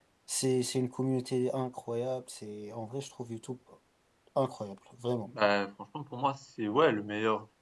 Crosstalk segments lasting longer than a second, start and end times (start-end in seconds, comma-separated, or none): none